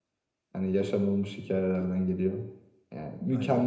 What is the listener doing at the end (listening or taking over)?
listening